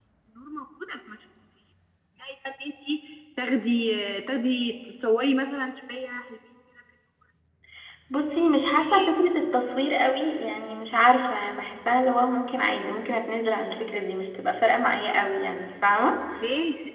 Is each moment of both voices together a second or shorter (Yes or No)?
Yes